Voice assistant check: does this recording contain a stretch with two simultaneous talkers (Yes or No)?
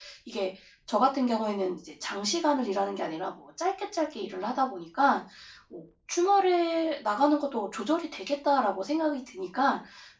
No